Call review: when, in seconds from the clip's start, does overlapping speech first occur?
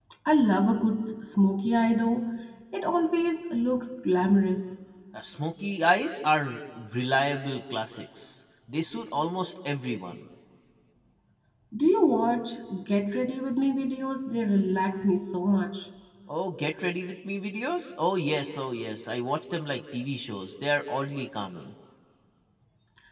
none

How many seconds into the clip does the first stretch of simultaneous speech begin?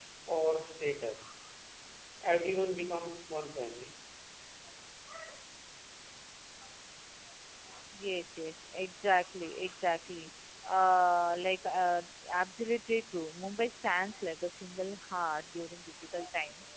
none

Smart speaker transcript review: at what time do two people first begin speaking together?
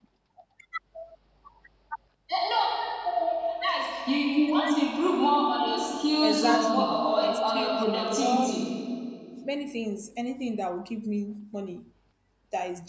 6.2 s

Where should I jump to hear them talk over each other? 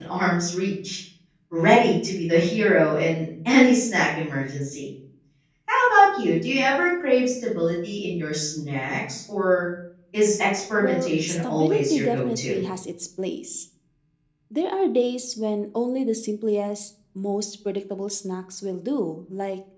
10.8 s

